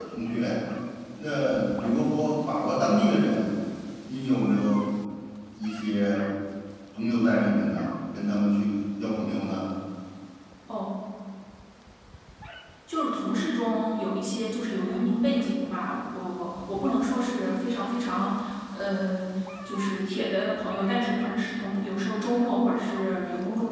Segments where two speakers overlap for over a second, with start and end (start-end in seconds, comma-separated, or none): none